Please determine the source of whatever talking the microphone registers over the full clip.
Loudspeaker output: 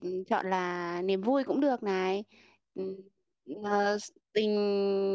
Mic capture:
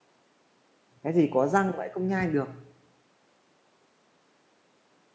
user only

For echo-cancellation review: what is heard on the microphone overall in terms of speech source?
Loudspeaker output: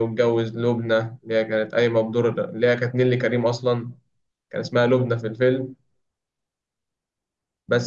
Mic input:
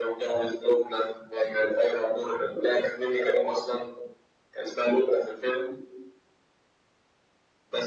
echo only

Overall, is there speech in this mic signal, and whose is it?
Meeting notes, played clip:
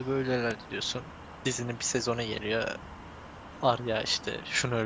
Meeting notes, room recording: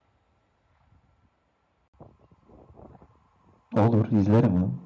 user only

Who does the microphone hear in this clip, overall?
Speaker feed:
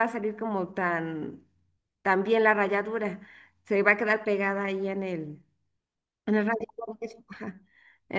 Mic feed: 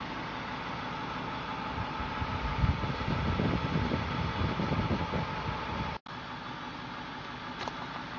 neither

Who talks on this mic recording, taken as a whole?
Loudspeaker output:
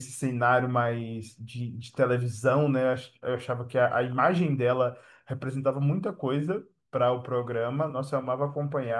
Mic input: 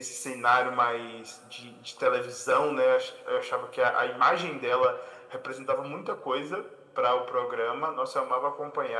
echo only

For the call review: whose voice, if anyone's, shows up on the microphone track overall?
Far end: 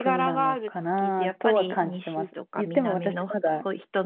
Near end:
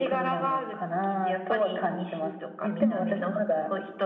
both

